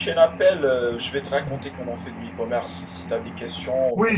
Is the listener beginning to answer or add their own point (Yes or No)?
Yes